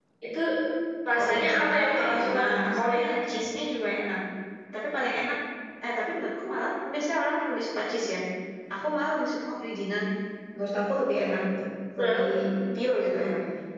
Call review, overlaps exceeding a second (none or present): present